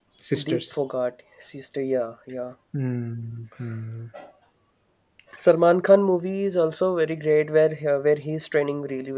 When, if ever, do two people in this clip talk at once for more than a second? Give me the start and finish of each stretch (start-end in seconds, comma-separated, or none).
none